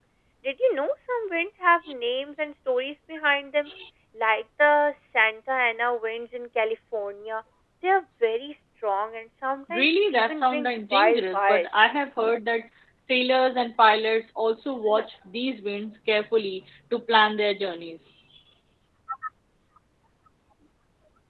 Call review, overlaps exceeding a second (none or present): present